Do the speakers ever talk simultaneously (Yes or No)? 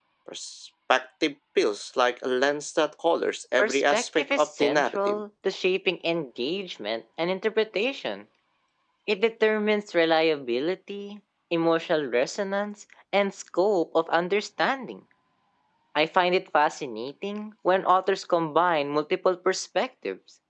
Yes